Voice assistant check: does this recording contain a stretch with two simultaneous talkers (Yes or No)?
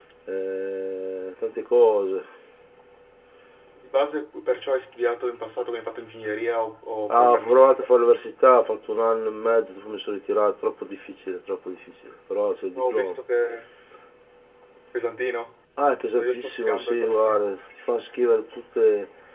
Yes